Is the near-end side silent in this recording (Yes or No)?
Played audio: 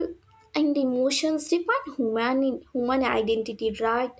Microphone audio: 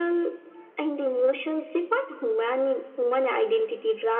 Yes